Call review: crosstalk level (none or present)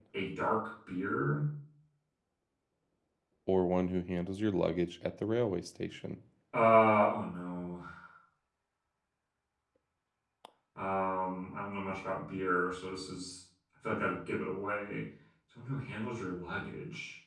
none